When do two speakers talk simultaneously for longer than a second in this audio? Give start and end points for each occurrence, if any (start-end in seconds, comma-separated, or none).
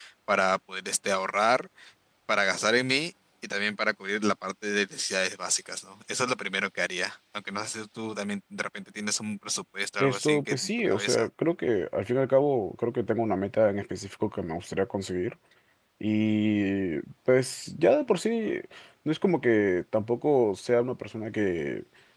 10.0-11.3